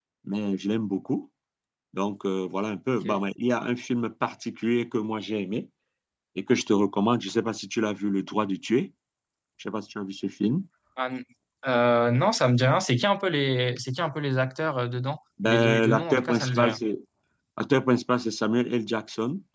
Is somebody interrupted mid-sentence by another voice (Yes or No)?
Yes